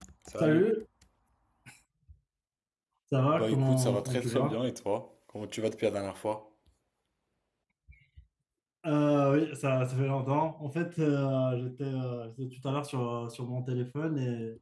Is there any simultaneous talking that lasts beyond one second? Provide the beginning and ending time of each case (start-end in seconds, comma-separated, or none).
3.3-4.6